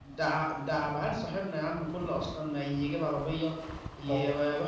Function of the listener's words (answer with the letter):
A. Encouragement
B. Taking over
A